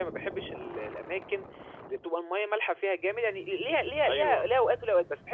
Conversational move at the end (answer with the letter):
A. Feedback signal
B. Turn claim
A